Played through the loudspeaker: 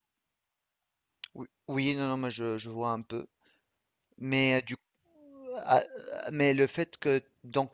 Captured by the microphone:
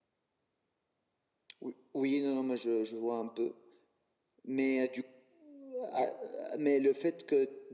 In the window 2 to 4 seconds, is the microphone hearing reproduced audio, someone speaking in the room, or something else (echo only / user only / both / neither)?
echo only